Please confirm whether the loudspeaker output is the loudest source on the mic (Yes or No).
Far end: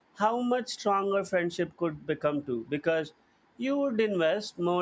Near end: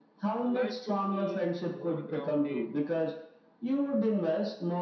Yes